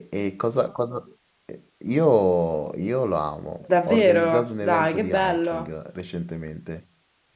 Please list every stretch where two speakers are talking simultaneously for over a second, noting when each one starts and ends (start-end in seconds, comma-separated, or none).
3.9-5.7